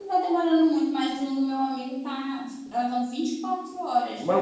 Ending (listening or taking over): taking over